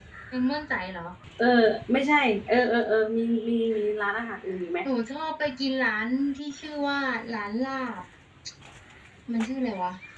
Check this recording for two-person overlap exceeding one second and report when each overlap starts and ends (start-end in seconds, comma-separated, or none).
none